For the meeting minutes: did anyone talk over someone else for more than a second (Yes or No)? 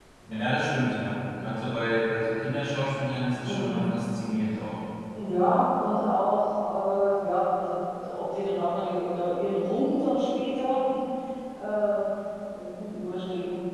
No